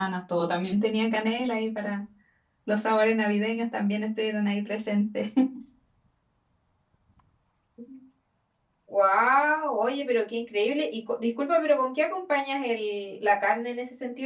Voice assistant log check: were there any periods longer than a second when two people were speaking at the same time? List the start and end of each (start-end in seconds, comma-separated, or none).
none